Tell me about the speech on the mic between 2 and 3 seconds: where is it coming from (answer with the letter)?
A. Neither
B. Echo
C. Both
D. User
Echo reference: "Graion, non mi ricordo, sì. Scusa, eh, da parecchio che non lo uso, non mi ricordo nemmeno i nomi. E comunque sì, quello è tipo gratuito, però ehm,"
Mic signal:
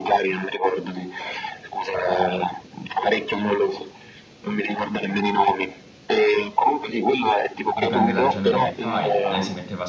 B